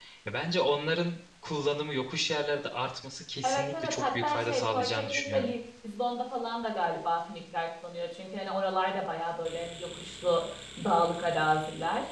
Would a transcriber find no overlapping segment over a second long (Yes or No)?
No